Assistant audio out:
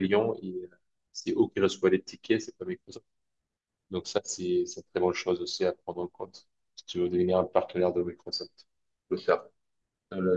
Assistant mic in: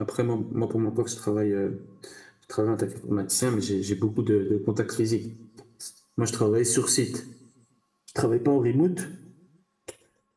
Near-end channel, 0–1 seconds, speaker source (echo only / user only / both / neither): user only